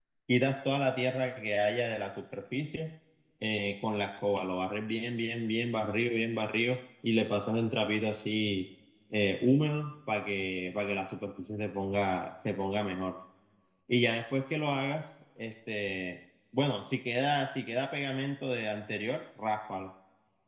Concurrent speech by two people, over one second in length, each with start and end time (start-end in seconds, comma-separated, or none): none